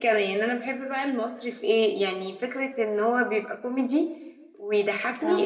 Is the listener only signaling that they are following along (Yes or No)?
Yes